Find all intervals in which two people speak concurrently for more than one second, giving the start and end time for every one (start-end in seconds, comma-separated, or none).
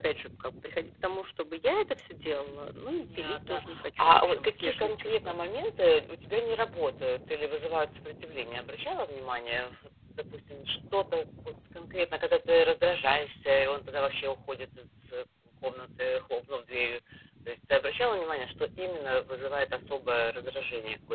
3.0-5.3